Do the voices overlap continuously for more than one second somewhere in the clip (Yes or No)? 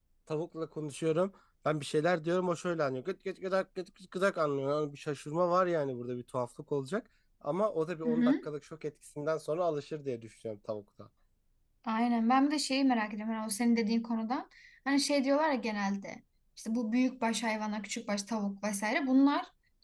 No